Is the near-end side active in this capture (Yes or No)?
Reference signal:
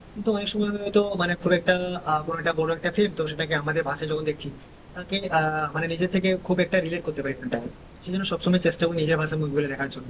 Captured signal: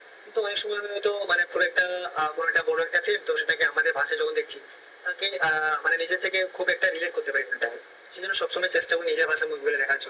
No